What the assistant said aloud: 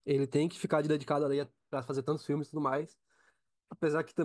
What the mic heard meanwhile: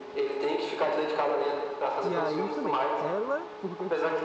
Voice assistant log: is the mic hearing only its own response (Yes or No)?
No